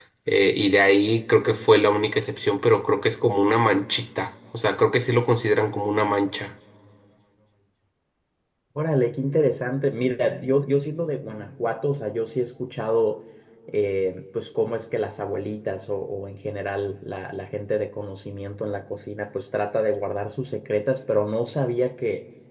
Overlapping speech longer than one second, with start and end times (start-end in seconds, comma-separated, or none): none